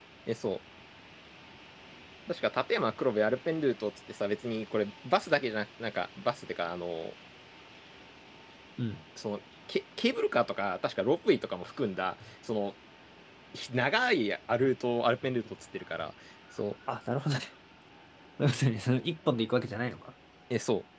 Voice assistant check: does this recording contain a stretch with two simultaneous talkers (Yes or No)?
No